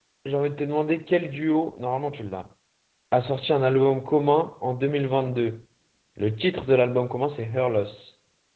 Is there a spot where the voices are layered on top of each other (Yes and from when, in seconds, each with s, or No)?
No